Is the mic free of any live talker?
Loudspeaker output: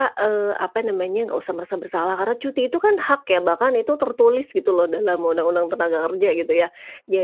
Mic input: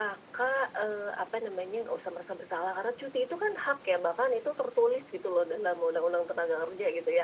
Yes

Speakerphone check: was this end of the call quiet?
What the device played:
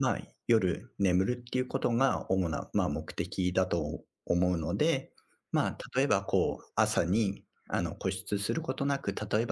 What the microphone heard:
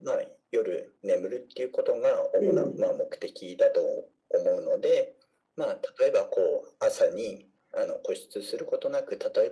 No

